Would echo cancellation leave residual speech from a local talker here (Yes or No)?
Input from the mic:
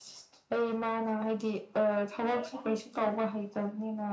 No